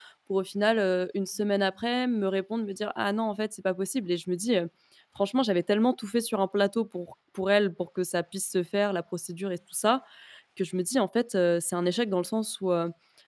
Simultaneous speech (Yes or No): No